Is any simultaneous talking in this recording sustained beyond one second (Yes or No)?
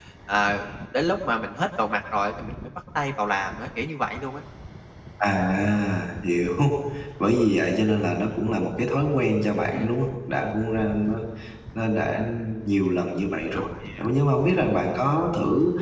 No